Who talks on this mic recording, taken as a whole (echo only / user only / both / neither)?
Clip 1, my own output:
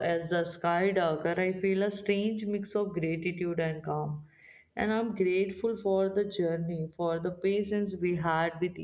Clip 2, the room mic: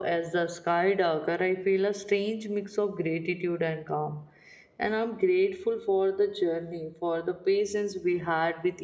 echo only